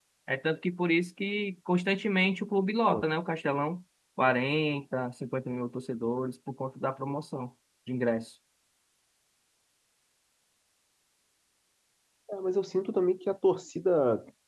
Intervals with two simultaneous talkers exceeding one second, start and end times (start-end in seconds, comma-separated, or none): none